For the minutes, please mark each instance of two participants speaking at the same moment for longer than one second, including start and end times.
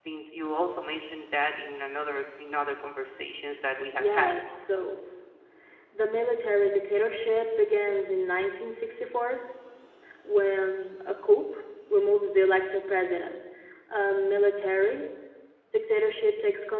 none

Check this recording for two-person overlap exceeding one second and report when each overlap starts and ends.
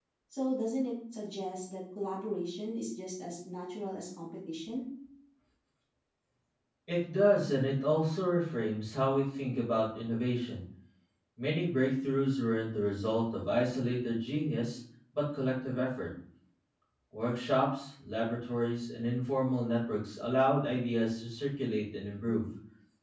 none

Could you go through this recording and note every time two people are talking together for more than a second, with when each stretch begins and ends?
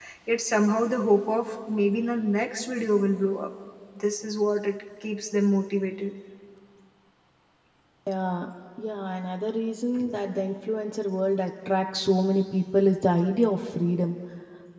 none

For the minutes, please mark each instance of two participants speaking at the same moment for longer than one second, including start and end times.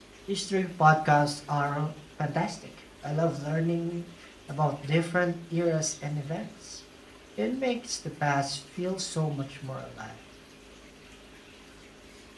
none

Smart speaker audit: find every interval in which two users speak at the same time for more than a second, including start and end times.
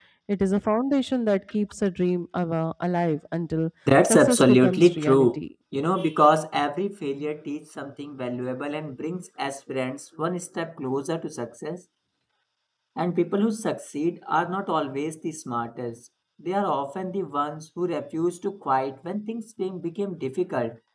4.1-5.3

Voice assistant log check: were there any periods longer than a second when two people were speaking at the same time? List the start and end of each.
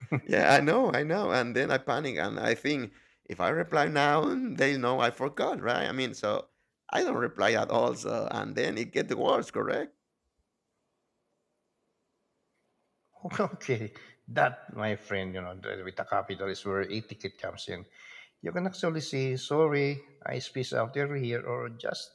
none

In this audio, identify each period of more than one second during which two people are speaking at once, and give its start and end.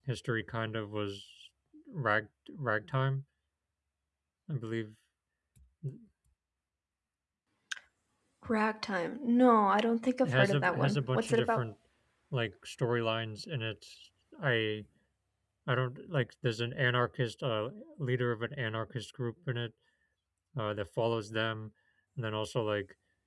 10.2-11.7

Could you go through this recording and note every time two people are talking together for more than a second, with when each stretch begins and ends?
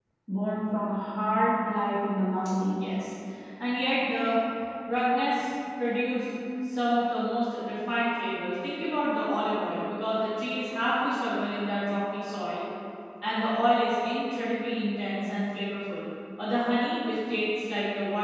none

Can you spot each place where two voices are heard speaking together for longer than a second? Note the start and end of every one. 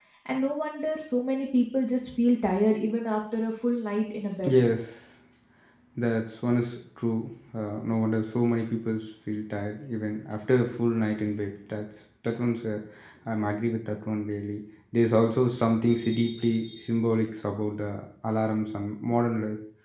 none

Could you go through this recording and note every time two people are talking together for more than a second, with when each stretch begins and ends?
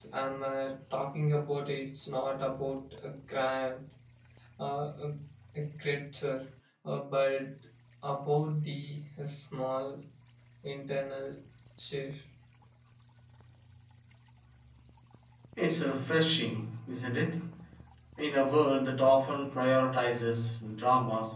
none

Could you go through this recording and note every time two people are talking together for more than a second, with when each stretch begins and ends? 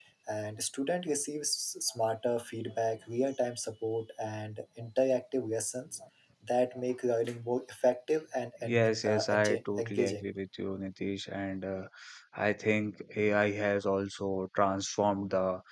8.6-10.2

